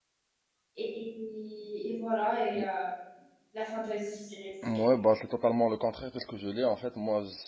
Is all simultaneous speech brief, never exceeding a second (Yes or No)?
Yes